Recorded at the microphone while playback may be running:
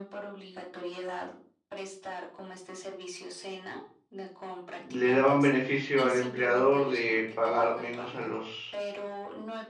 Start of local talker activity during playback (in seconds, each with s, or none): 4.8 s